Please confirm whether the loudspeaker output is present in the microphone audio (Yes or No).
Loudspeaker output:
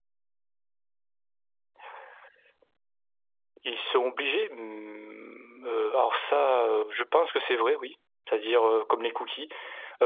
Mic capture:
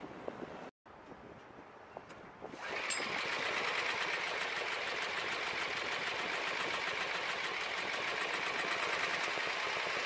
No